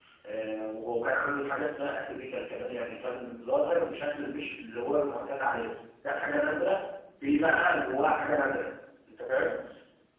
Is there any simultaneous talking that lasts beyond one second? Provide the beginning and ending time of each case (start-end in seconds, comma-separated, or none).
none